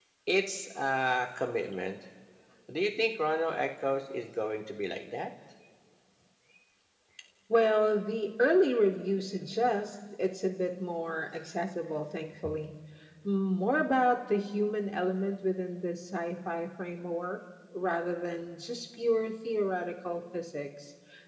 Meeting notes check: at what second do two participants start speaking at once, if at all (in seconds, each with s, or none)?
none